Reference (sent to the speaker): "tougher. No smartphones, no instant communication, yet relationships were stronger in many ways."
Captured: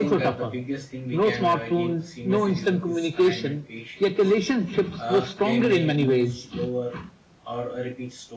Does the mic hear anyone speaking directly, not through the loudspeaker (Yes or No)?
Yes